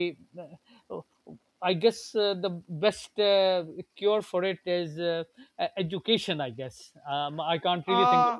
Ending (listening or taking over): taking over